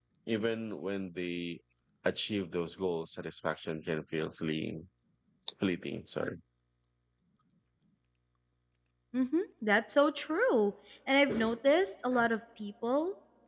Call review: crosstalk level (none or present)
none